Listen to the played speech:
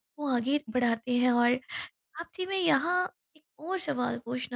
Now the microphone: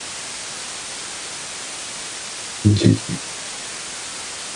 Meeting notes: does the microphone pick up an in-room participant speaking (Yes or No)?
Yes